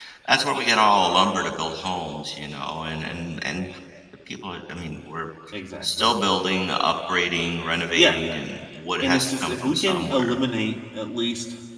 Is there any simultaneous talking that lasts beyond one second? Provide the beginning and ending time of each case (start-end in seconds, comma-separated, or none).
9.0-10.4